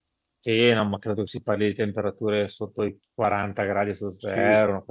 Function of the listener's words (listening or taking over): taking over